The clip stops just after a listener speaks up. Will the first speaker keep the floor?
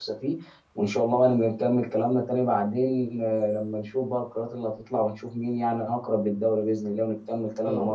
No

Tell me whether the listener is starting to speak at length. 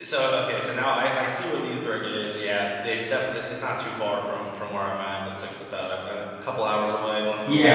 Yes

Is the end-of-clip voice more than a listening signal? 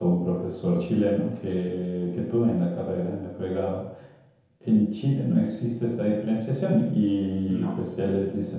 No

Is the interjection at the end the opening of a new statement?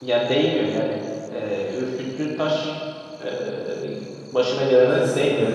Yes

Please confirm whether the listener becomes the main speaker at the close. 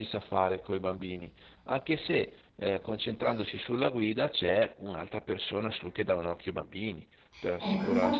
Yes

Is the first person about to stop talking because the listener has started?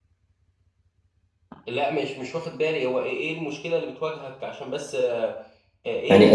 Yes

